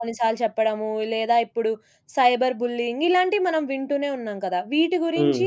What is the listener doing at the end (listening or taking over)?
listening